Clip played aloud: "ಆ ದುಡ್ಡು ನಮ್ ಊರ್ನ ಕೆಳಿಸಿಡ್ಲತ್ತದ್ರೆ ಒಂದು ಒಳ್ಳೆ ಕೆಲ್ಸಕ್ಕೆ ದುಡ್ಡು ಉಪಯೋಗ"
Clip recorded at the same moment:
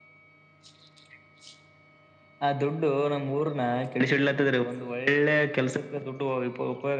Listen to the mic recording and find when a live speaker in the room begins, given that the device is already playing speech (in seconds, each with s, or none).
none